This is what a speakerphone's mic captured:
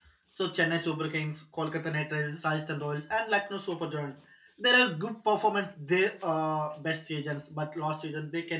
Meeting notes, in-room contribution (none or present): present